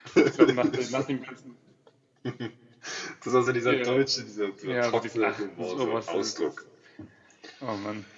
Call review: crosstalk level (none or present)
present